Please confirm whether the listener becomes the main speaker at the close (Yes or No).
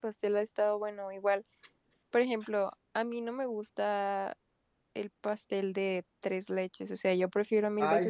Yes